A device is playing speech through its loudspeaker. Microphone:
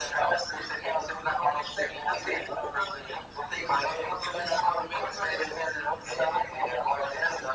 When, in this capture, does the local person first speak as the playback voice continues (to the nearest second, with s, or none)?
none